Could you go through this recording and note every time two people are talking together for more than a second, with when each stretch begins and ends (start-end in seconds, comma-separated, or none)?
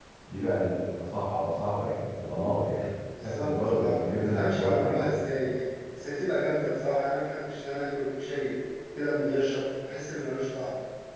3.4-5.2